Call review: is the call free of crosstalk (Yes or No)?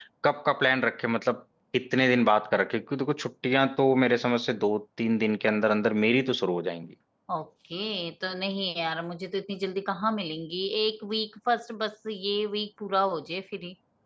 Yes